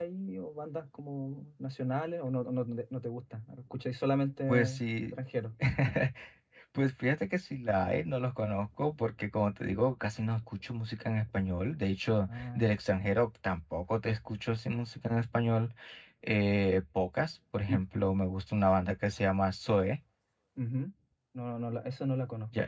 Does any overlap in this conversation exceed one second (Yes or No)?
No